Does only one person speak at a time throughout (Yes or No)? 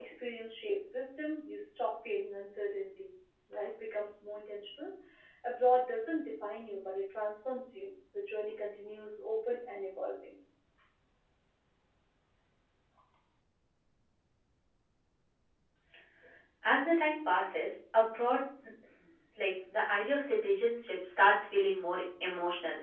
Yes